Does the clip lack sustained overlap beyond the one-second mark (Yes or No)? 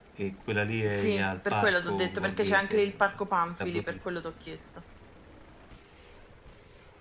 No